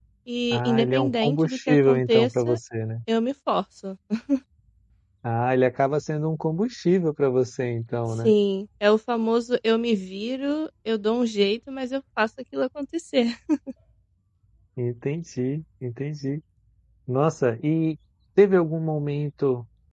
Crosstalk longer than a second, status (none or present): present